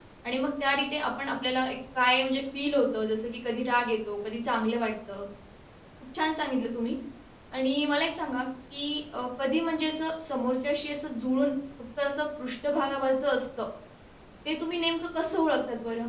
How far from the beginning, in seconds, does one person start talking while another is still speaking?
none

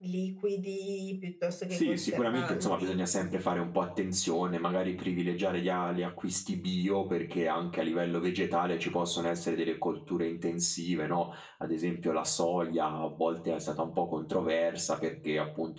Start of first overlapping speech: 1.7 s

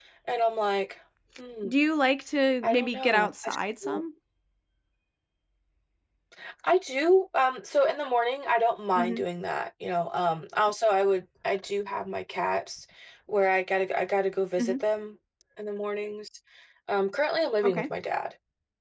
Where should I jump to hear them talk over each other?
2.6 s

